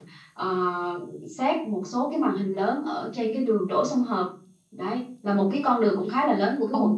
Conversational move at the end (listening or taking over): taking over